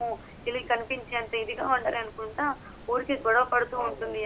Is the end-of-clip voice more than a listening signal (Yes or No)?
No